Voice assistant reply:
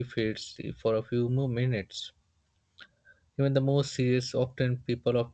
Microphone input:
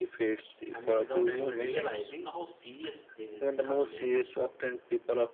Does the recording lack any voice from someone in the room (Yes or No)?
No